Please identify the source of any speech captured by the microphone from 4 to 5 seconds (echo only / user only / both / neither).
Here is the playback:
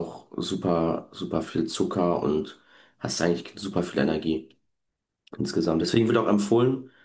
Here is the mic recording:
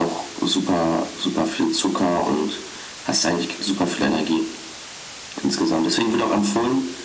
echo only